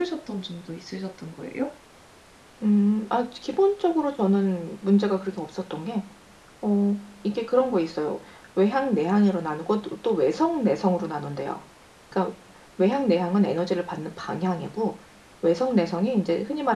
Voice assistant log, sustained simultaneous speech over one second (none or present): none